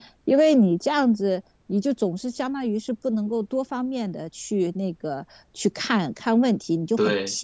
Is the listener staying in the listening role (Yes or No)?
Yes